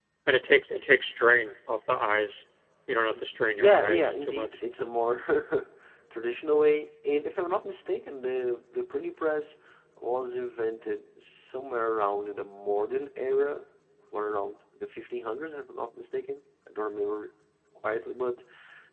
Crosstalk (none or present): present